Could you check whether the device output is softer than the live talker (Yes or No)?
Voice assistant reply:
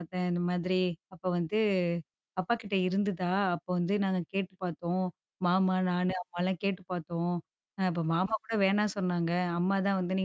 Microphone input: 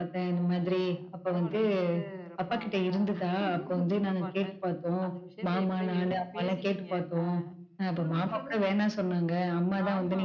No